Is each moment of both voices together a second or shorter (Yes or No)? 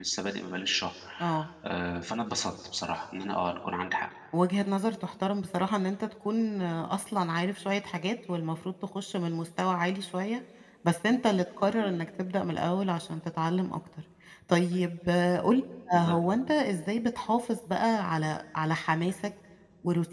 Yes